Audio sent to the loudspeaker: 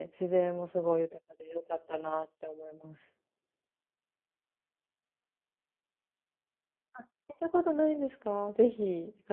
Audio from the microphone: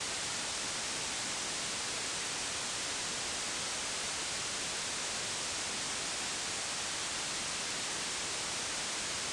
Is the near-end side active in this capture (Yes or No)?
No